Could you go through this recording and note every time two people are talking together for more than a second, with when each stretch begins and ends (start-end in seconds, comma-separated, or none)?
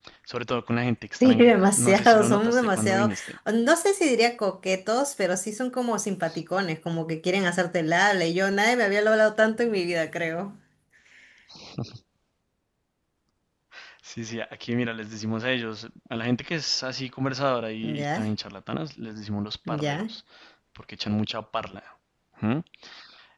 1.2-3.1